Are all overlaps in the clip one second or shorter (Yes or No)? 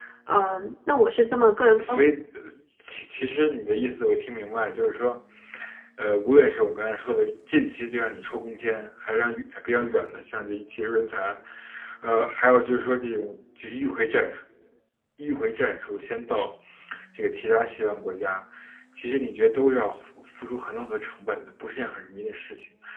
Yes